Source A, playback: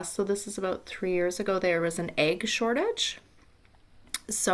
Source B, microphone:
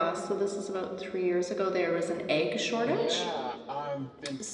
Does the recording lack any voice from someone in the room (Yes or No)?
No